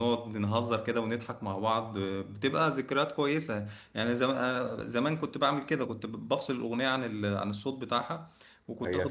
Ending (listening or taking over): taking over